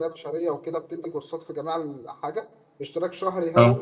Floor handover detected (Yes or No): No